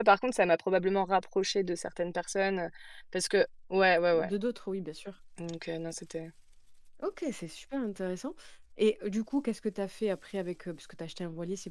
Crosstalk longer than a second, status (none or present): none